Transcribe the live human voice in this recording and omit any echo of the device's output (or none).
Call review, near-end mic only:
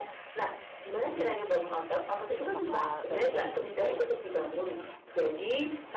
Apakah baiknya begitu atau